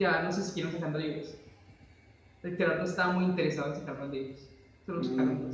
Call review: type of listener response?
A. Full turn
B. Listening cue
A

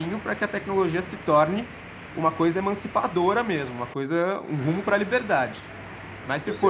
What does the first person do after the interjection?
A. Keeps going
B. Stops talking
A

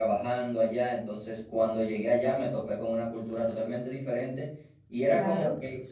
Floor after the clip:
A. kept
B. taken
A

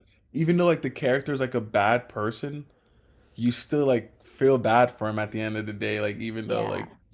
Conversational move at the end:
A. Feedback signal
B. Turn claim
A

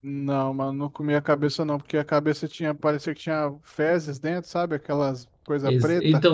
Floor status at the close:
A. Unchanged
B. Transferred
B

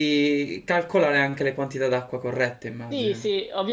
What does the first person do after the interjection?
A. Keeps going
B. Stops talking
B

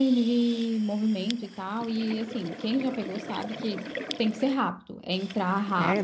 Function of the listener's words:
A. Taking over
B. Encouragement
A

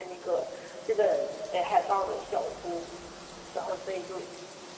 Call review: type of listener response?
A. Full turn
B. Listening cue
B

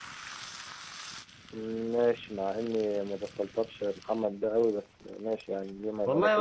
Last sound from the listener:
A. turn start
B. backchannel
A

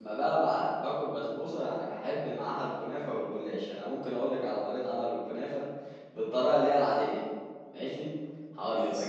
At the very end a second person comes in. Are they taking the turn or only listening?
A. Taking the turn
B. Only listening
B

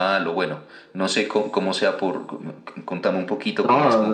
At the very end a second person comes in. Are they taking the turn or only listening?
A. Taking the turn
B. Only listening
A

